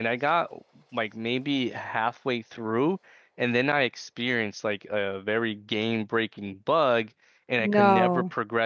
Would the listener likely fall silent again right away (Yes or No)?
Yes